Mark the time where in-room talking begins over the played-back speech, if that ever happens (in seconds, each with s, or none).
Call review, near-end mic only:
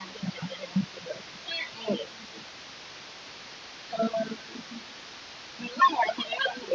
none